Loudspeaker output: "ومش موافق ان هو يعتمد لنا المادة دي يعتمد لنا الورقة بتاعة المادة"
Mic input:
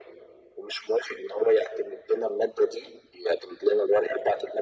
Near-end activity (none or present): none